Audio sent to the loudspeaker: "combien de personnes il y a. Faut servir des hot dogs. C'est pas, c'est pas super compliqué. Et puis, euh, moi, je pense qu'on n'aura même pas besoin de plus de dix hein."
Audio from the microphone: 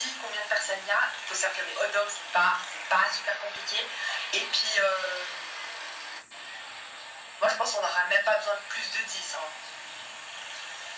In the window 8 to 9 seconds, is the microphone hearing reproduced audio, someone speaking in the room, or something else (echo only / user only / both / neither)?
echo only